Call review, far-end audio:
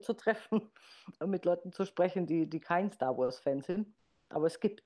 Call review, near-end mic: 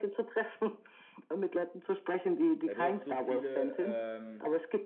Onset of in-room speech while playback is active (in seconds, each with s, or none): 2.6 s